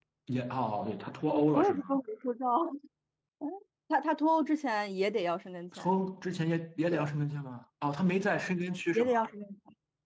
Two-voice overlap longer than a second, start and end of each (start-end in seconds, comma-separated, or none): none